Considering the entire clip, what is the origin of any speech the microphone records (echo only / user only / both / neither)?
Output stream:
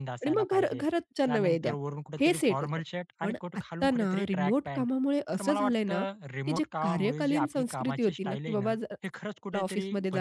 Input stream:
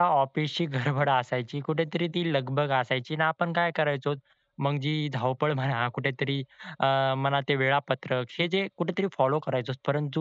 user only